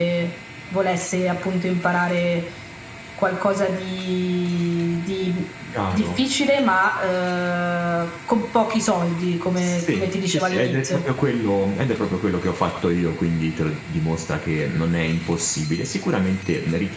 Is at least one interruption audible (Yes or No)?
Yes